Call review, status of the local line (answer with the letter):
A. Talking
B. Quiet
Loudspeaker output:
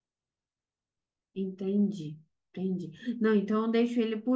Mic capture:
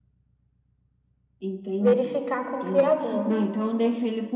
A